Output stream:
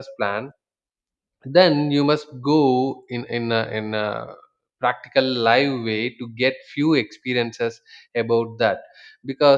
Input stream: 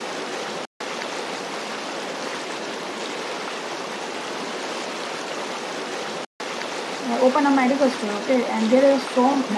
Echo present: No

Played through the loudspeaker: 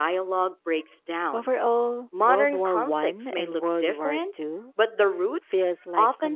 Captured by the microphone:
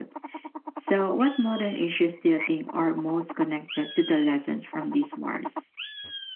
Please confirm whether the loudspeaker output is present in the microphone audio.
No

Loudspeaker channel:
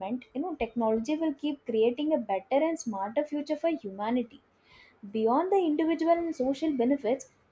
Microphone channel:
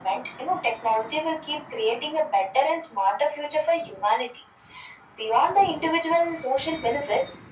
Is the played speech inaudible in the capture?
No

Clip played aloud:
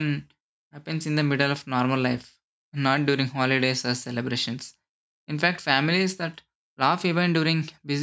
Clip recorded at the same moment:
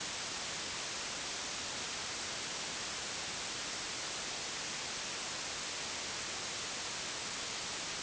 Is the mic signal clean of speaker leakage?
Yes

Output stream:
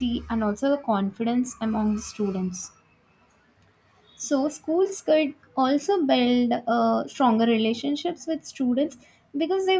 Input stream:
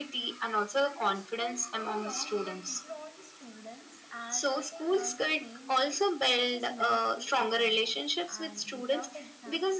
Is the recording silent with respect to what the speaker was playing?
No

